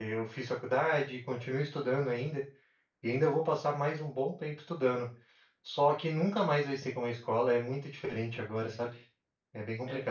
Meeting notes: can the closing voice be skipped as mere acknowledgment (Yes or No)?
No